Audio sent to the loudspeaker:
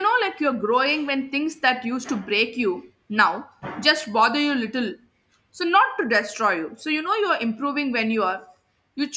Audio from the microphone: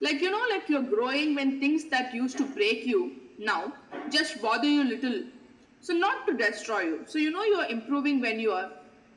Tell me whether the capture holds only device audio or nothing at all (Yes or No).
Yes